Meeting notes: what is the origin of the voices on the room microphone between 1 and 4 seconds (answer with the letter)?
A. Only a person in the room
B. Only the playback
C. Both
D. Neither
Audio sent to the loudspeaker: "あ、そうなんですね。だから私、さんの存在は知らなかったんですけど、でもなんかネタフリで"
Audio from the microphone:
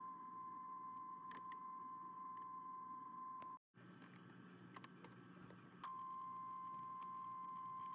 D